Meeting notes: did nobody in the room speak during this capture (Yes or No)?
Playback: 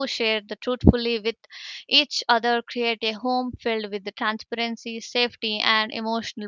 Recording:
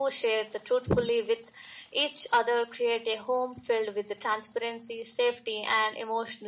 Yes